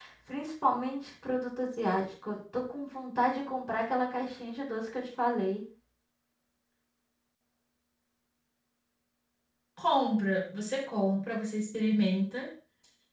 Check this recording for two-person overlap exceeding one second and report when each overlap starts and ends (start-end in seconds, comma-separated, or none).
none